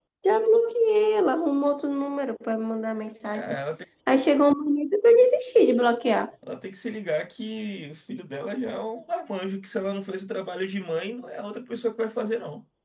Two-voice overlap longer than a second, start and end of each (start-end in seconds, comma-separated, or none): none